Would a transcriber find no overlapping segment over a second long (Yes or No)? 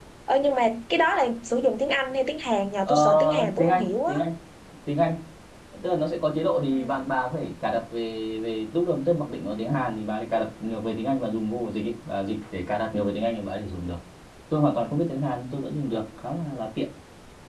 No